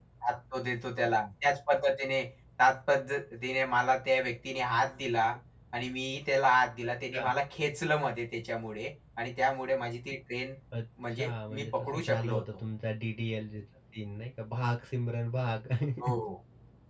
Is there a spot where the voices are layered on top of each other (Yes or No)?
Yes